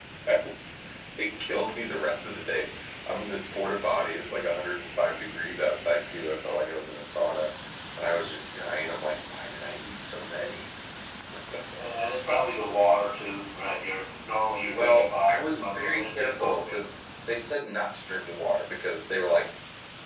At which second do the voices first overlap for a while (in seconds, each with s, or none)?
14.7 s